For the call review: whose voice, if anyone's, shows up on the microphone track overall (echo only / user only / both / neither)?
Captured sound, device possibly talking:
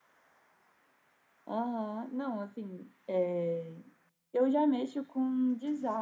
user only